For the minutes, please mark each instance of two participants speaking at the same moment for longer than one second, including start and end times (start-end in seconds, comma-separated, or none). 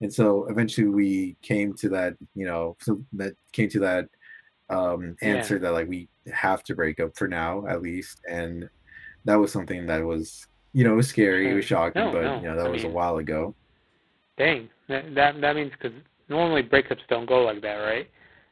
11.3-13.0